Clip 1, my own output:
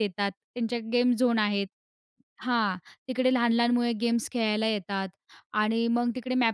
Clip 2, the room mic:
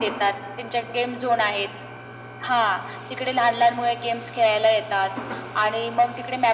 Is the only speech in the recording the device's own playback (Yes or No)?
Yes